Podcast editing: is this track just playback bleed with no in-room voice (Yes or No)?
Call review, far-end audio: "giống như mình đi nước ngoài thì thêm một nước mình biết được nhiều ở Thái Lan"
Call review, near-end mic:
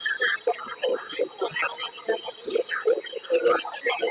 Yes